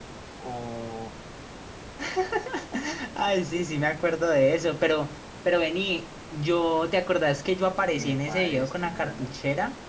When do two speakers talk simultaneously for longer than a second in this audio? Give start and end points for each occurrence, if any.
8.0-9.3

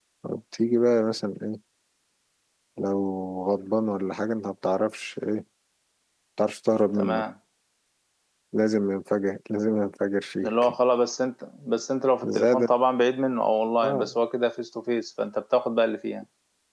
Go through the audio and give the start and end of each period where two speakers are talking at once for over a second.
none

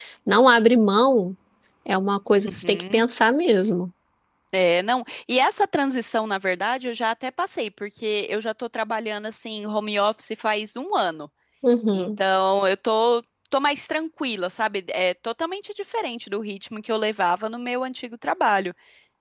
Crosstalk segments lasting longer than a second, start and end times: none

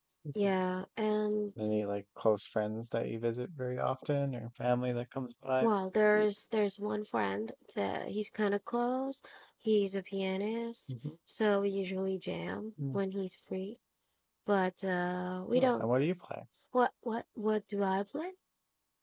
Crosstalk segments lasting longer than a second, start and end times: none

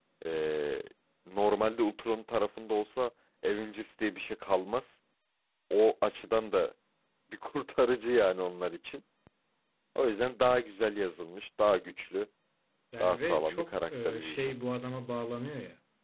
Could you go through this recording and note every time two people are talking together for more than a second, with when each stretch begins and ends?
13.0-14.5

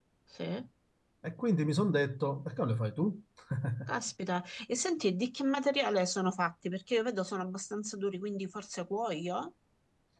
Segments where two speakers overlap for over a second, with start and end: none

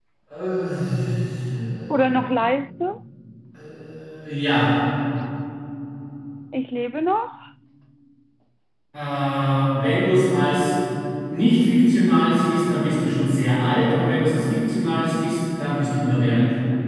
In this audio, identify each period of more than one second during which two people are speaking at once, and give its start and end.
none

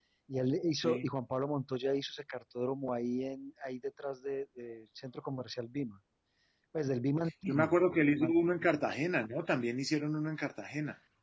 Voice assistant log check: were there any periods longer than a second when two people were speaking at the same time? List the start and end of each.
none

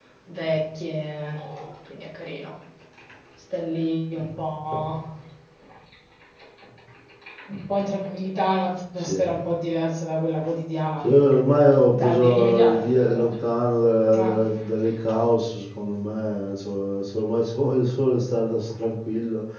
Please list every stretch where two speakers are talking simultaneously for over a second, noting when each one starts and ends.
11.9-13.3

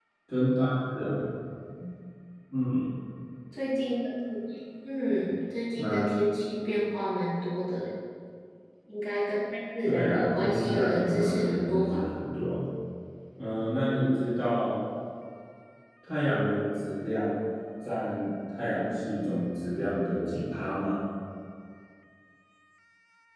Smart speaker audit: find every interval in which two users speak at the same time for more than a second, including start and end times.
9.8-12.0

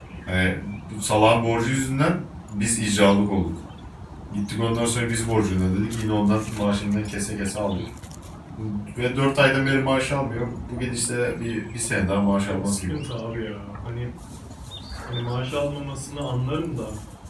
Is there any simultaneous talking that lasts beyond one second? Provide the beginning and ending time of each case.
none

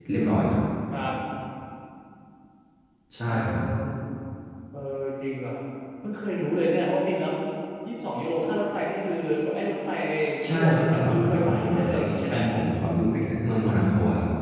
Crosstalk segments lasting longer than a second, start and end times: 10.5-12.4

